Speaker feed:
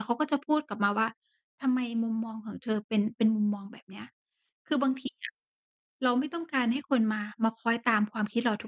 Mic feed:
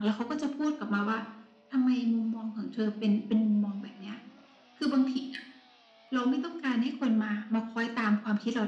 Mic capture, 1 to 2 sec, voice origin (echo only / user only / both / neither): echo only